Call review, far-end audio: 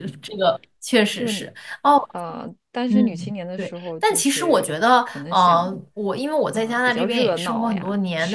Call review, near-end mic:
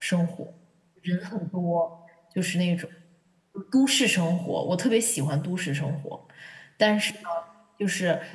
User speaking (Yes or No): Yes